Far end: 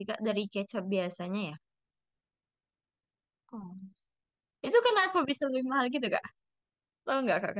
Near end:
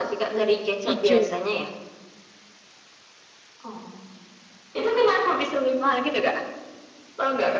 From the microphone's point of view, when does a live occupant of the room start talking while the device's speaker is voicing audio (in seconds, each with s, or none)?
0.9 s